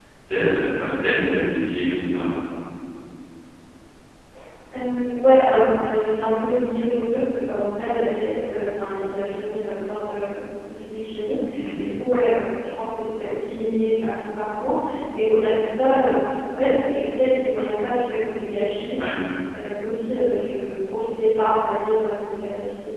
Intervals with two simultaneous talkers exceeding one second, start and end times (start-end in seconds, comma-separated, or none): none